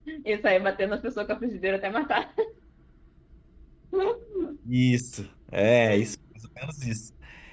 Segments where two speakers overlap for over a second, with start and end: none

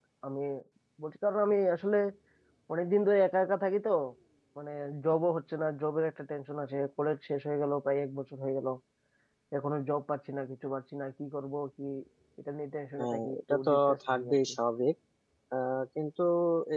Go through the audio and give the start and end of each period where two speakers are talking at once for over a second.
13.0-14.4

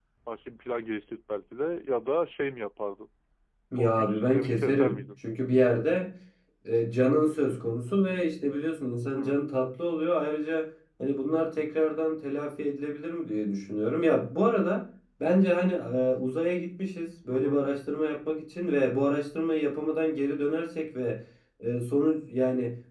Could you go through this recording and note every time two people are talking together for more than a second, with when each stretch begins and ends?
3.8-5.0

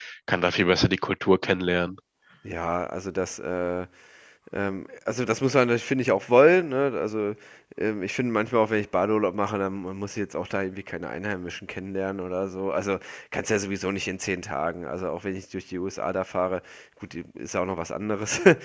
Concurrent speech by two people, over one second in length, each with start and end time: none

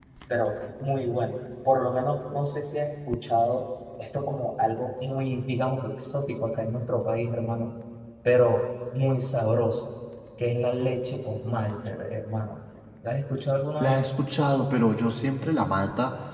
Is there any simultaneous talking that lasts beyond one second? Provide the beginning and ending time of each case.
none

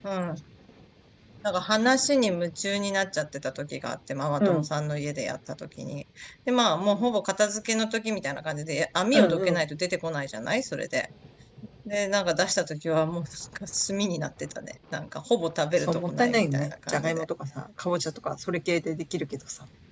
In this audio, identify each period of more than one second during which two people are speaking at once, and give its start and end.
15.8-17.2

